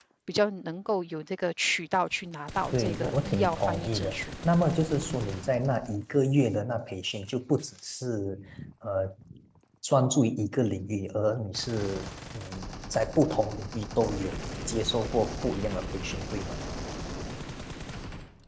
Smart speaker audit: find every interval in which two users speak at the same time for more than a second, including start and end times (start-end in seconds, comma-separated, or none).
2.7-4.3